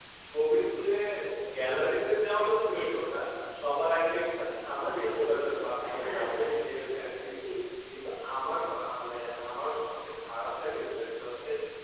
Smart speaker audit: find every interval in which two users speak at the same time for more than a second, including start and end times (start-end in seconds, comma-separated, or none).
4.5-6.5